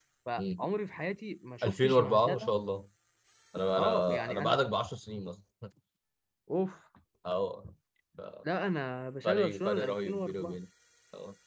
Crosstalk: present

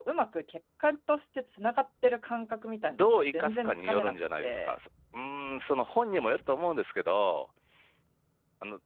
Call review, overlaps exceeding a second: present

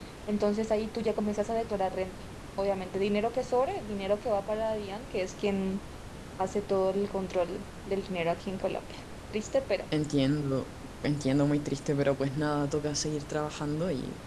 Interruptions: none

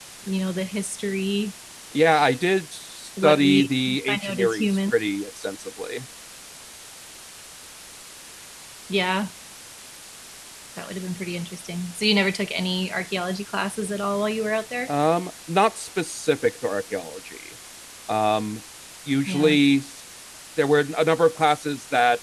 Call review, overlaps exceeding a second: present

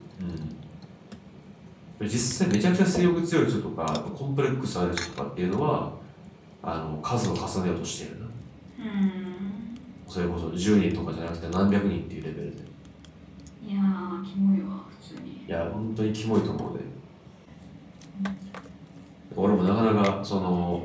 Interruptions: none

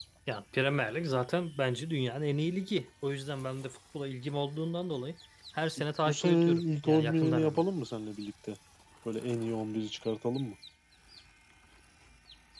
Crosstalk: present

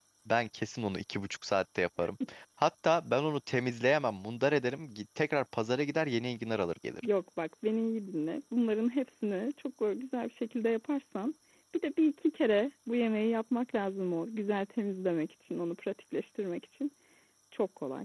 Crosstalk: none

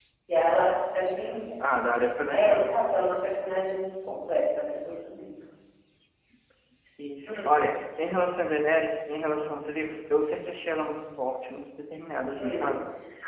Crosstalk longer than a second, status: none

